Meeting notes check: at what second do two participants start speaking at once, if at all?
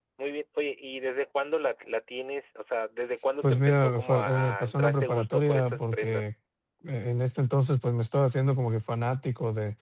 3.4 s

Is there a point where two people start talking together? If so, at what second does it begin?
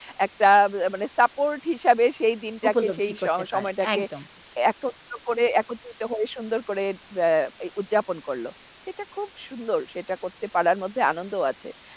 2.6 s

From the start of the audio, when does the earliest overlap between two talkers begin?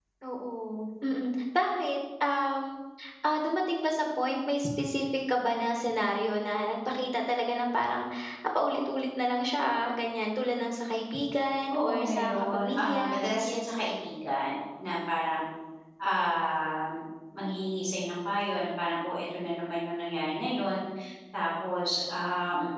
11.7 s

